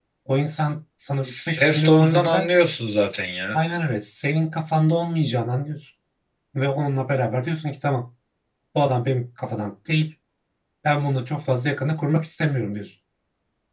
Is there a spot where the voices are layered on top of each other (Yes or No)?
Yes